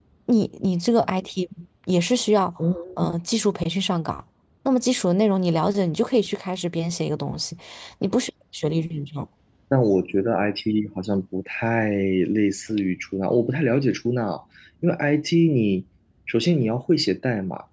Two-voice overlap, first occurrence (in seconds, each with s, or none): none